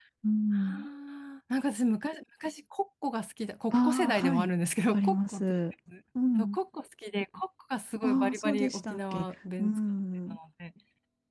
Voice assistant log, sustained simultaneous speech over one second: present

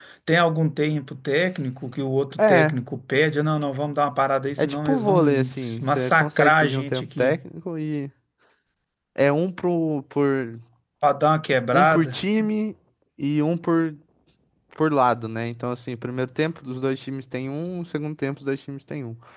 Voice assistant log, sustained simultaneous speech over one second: present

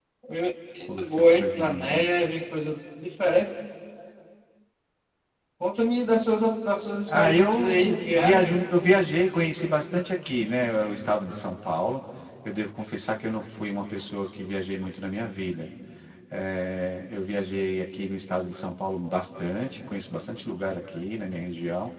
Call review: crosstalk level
present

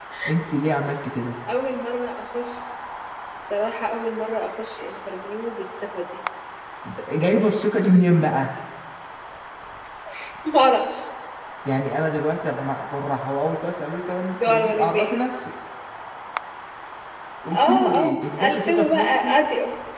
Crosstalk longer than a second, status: present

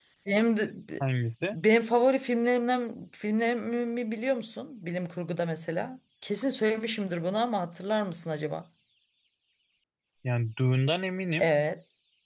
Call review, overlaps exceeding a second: none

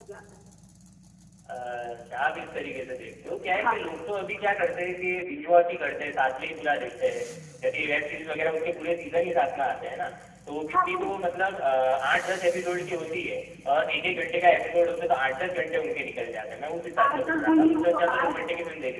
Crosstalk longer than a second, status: present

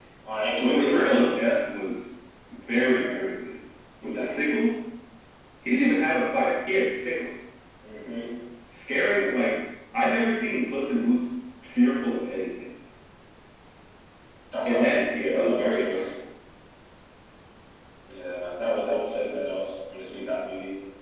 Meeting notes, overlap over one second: present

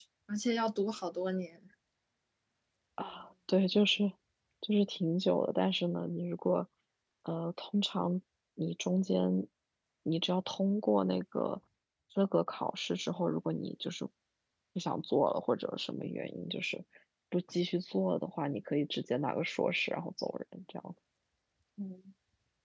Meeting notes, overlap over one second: none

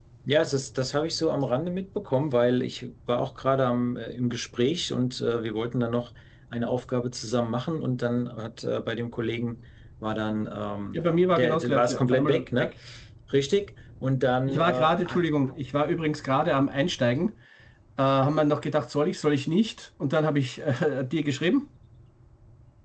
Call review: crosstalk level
present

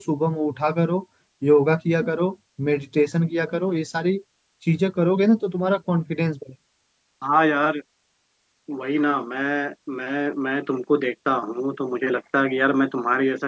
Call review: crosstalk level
none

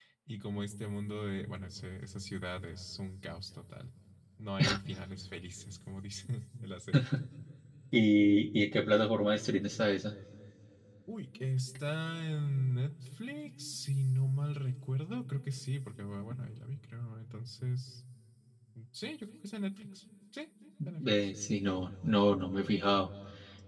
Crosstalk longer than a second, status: none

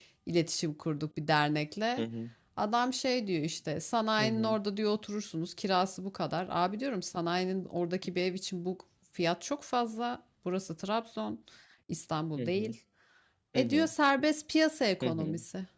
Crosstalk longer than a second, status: none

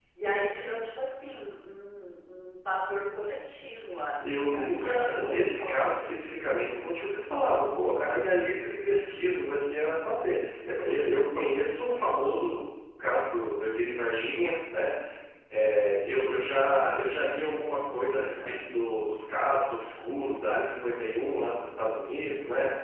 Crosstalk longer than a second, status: present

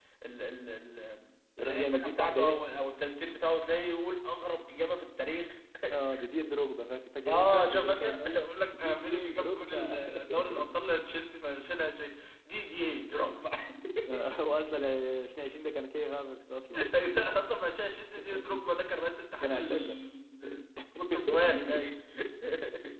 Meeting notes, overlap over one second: present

